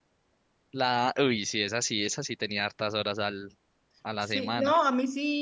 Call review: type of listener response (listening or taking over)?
taking over